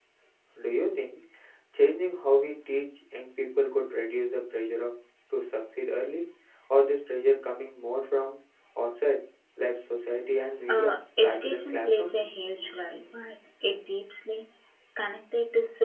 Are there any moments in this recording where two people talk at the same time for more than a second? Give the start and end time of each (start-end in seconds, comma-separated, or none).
10.7-12.1